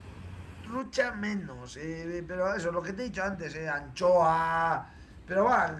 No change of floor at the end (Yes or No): Yes